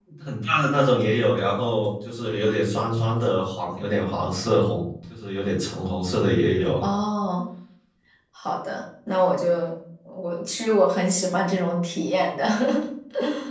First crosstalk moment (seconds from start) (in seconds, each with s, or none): none